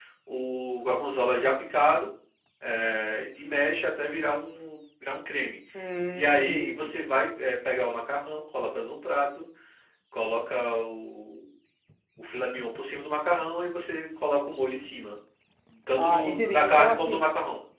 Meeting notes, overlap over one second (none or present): present